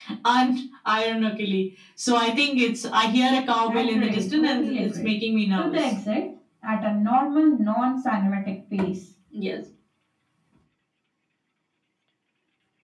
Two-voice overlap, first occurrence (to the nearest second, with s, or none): 4 s